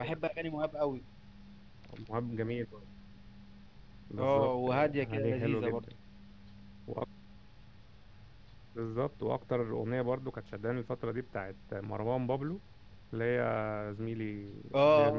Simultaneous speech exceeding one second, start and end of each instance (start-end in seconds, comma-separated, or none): 4.2-5.8